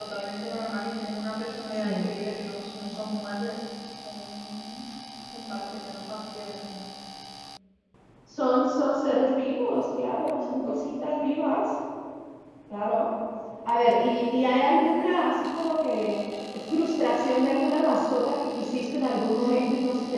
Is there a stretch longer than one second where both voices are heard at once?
No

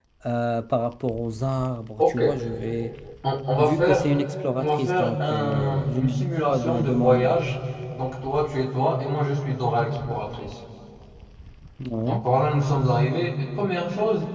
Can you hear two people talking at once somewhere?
Yes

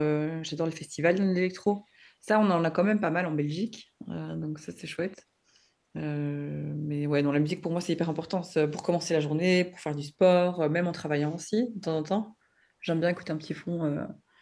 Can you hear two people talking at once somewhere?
No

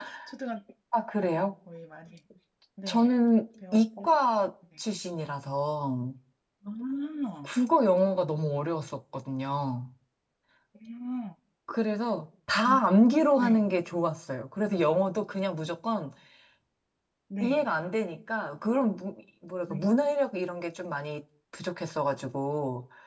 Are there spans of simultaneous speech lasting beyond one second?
No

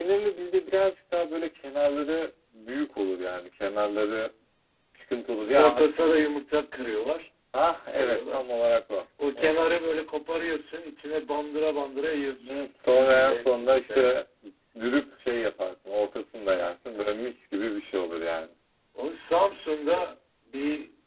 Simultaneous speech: Yes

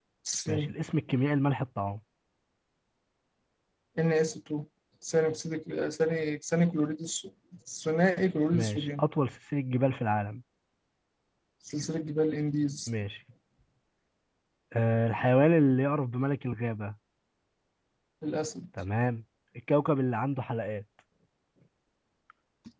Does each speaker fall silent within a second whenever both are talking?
Yes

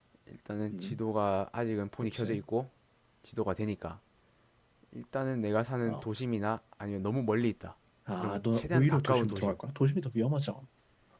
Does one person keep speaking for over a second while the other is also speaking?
Yes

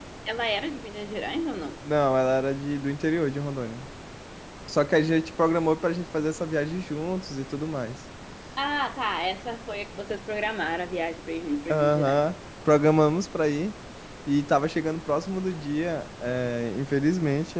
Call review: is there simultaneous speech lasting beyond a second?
No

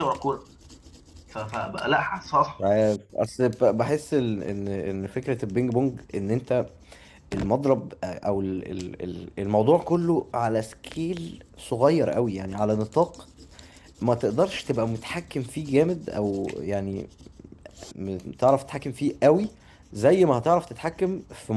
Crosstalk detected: No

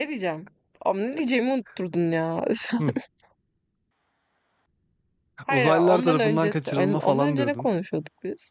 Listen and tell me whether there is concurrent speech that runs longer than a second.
Yes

